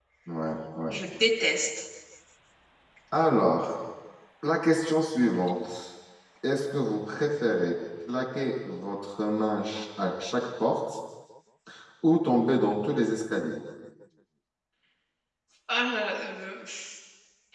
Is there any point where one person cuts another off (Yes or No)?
No